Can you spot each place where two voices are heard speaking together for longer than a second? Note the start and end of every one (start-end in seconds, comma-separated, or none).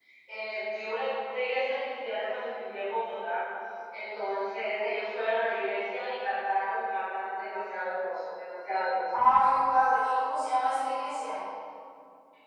none